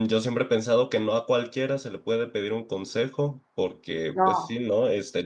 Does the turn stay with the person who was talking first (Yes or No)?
Yes